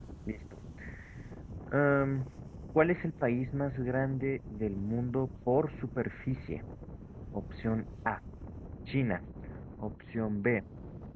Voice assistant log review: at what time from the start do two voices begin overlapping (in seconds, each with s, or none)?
none